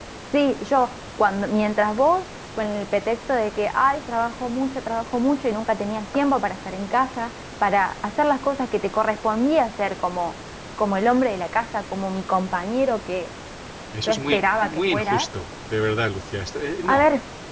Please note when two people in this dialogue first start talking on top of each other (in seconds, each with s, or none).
14.1 s